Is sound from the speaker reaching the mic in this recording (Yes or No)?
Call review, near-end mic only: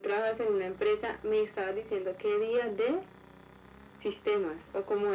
Yes